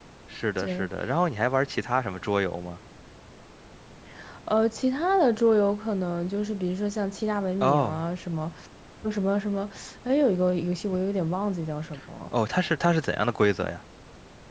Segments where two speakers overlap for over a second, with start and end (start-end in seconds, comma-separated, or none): none